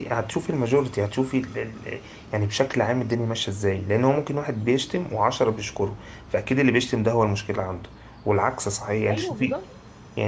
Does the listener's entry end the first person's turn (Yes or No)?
No